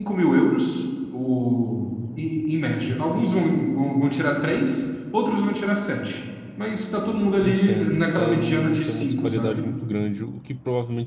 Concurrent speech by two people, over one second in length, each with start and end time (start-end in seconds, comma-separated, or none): 7.4-9.6